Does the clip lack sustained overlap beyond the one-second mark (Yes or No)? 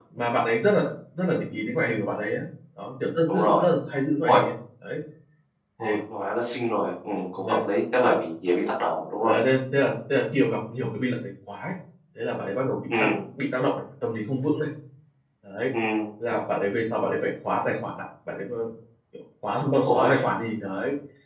Yes